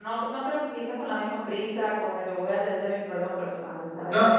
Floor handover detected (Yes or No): Yes